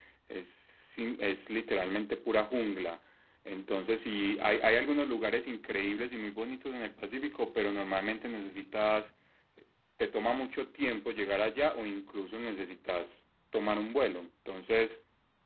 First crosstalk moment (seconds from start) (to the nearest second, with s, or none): none